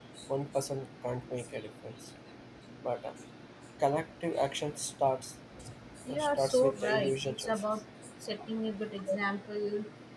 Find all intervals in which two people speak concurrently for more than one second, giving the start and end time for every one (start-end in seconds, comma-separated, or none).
6.1-7.6